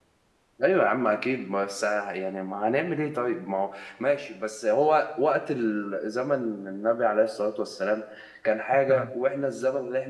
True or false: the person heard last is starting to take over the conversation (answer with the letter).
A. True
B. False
B